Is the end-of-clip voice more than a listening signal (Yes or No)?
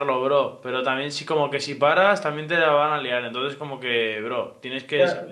Yes